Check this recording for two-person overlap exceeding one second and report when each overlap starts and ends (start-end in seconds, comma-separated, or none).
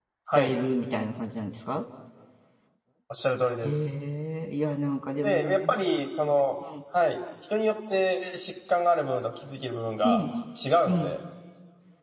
none